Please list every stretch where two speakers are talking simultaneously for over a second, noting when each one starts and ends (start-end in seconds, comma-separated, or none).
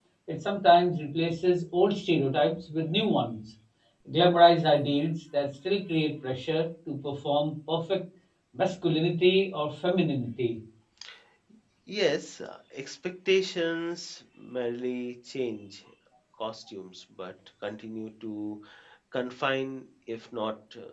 none